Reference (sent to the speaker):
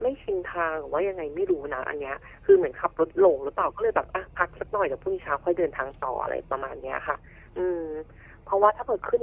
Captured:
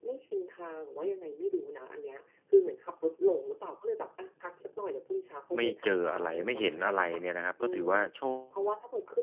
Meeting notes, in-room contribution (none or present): present